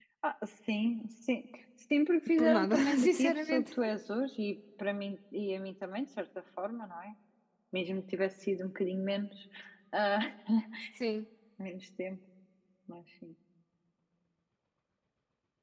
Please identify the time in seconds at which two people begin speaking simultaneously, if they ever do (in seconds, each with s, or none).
2.4 s